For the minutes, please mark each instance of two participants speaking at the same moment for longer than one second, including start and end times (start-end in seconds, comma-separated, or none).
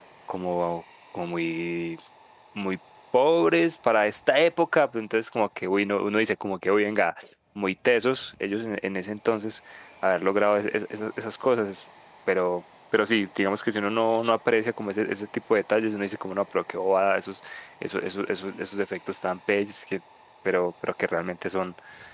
none